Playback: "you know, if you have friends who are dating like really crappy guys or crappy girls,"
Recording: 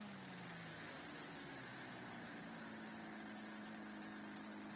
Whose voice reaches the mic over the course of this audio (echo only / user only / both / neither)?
neither